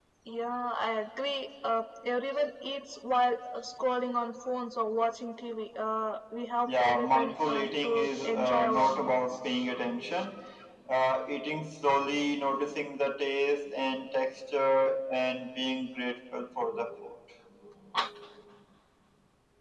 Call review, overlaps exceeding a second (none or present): present